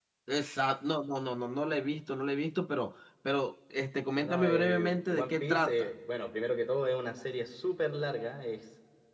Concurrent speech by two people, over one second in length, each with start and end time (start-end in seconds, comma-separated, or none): 4.2-5.9